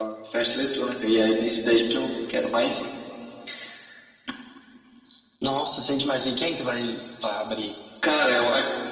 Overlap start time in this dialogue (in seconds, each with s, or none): none